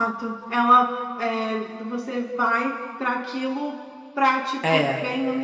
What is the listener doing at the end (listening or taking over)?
listening